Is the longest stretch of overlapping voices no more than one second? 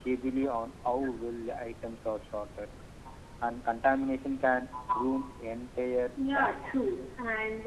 Yes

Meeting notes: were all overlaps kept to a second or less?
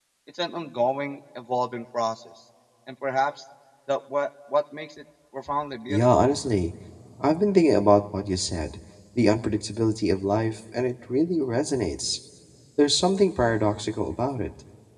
Yes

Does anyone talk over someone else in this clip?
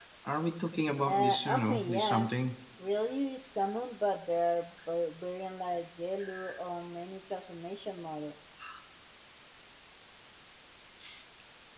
Yes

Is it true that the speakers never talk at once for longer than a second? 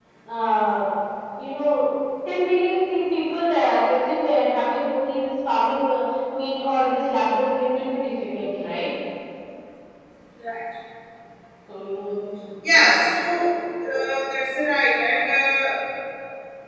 Yes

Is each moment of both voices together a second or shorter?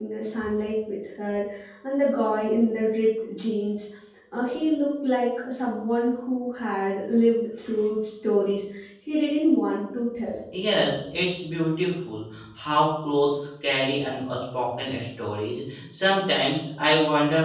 Yes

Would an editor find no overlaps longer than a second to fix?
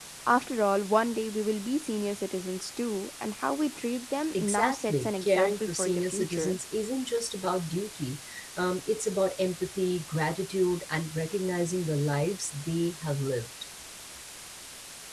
No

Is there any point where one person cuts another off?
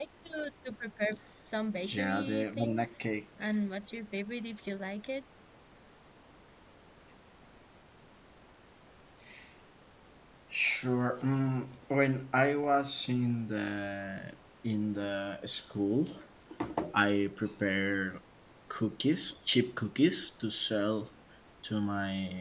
Yes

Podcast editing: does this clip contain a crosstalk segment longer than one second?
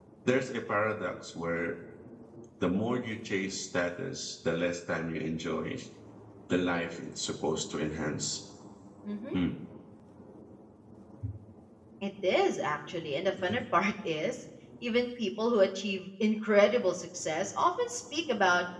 No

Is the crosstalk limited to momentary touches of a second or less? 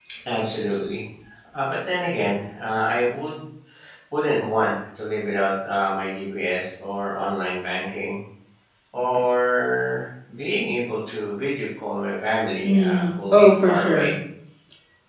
No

